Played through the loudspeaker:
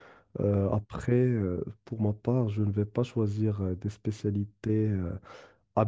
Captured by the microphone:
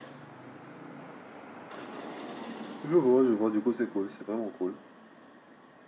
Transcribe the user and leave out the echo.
Je vois, je vois, du coup, c'est cool, c'est vraiment cool.

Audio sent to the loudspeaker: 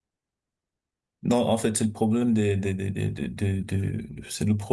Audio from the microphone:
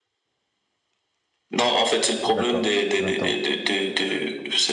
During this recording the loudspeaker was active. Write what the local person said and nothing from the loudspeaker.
d'accord. J'entends.

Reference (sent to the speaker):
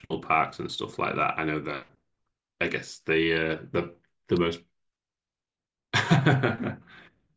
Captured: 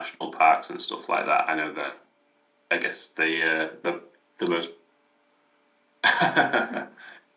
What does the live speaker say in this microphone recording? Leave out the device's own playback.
none

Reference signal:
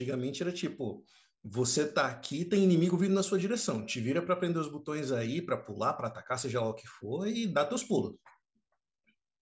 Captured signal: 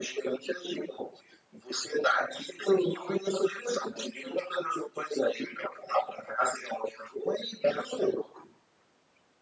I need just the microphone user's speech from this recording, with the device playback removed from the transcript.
none

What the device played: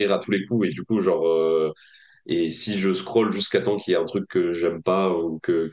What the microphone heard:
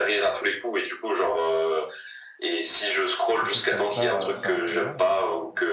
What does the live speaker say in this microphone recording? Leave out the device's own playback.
de choses comme ça euh, très rapidement. ouais.

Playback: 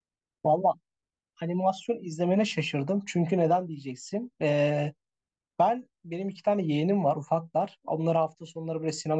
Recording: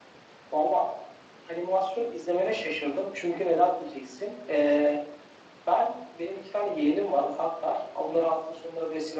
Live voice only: none

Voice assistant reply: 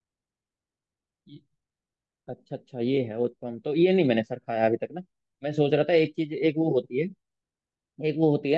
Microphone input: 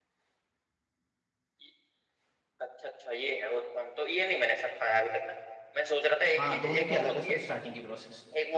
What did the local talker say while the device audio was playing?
हाँ दोनों की अलग है सर स्टार्टिंग की प्रोसेस

